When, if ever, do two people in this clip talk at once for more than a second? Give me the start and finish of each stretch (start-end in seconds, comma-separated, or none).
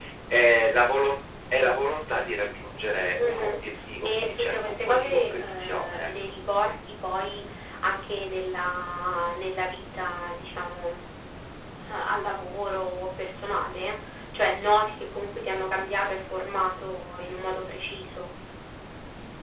4.0-6.1